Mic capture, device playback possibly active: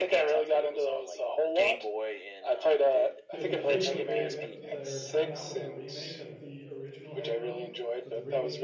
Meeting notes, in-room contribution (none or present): present